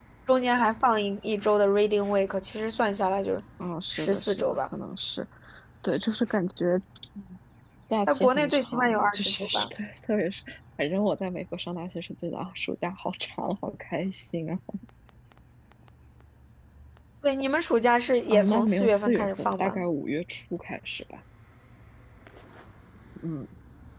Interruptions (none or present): present